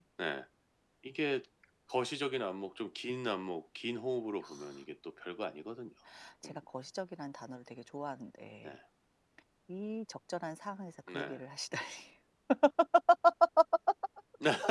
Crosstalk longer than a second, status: none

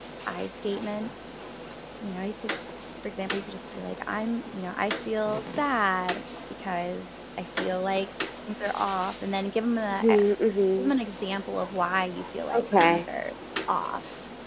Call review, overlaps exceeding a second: none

